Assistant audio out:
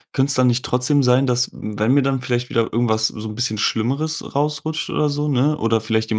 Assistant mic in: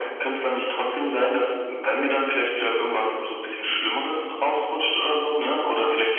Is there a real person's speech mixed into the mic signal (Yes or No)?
No